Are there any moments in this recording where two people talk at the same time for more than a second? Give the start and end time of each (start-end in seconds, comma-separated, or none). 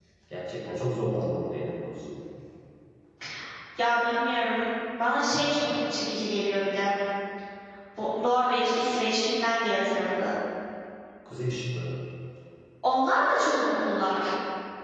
none